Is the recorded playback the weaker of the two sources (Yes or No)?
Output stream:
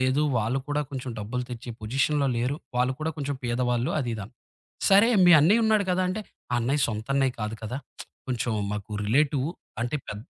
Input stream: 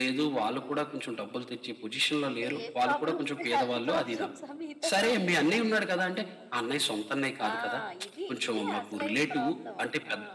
No